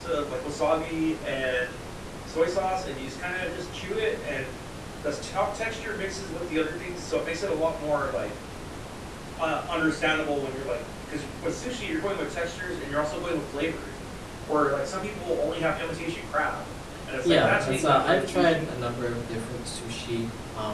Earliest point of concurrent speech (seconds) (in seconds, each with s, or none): 17.2 s